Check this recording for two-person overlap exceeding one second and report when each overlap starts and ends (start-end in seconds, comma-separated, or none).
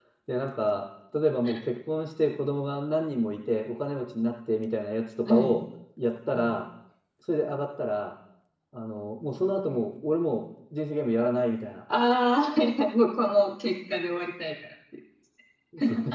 none